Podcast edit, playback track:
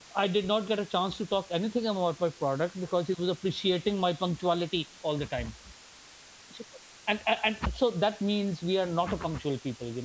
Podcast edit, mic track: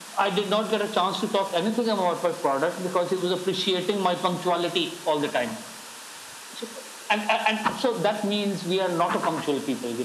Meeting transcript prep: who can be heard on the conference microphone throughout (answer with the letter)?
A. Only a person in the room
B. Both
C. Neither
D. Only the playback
D